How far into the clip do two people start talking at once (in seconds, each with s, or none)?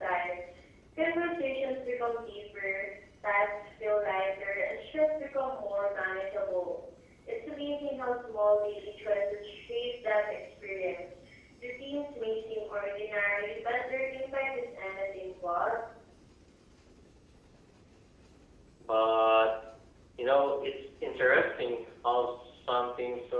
none